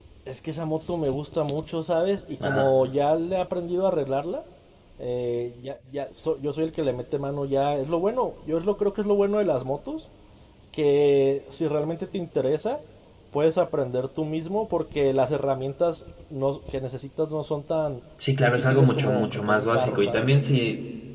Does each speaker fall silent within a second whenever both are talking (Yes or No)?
No